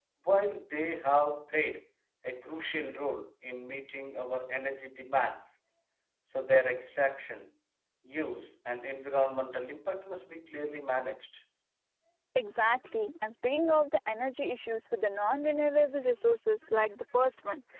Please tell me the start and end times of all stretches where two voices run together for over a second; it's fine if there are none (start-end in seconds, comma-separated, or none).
none